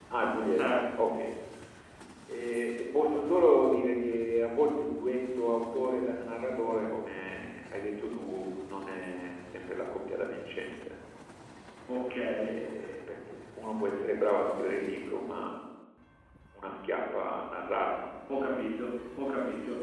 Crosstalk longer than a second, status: none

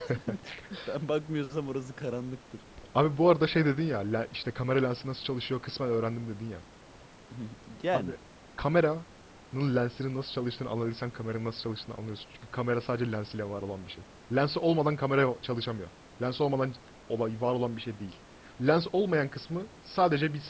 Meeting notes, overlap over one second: none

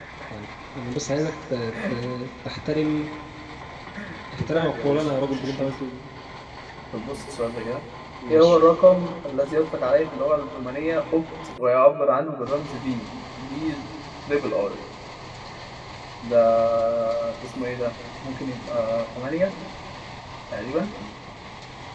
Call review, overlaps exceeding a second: present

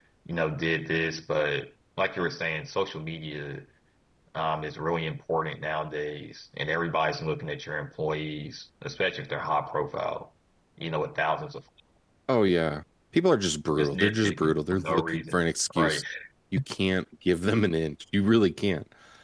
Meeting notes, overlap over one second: present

